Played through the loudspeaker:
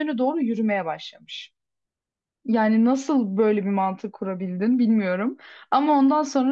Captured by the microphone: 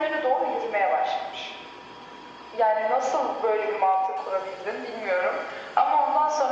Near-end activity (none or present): none